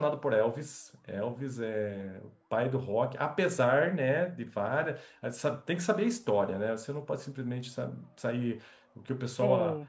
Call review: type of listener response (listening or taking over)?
listening